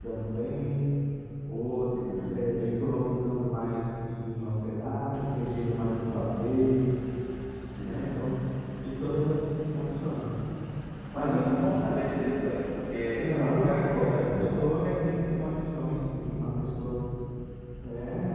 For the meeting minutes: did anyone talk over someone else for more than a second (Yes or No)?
Yes